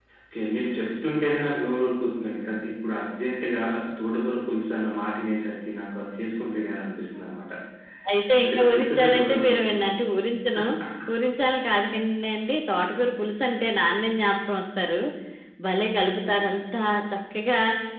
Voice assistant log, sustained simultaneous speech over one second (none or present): present